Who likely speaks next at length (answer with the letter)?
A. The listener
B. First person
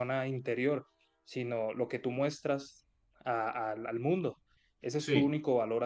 B